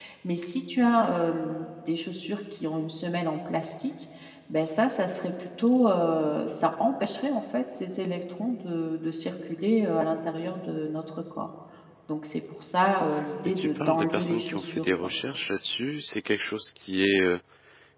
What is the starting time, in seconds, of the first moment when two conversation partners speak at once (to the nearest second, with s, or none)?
13 s